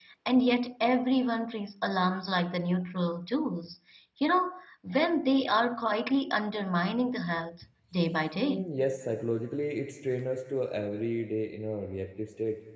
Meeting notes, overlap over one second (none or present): none